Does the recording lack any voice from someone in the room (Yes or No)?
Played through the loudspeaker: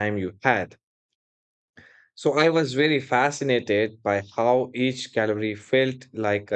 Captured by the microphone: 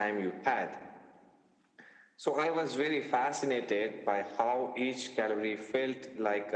Yes